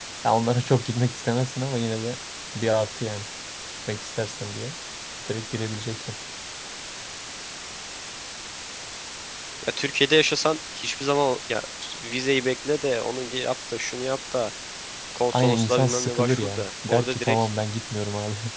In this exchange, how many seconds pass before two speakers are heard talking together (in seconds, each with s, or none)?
15.3 s